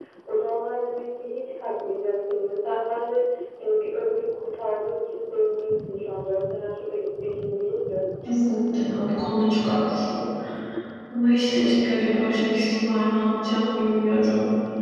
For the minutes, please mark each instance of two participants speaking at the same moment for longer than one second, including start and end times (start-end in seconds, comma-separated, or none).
none